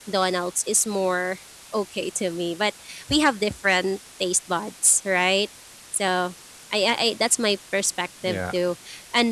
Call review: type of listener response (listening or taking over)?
listening